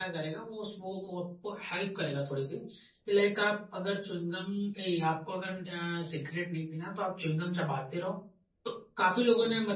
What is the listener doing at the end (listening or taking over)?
listening